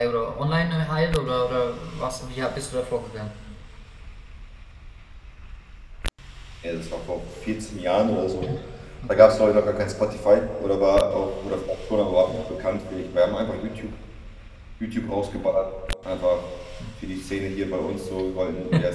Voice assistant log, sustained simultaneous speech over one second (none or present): none